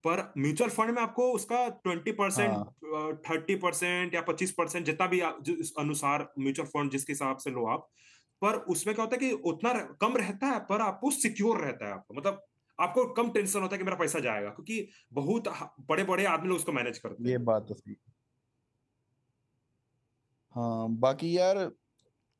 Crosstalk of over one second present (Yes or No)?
No